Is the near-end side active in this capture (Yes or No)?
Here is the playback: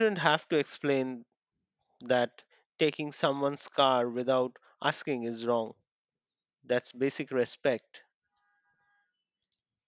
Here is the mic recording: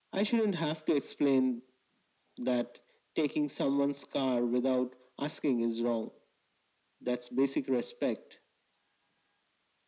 No